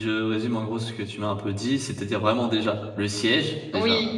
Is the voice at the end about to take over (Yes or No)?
No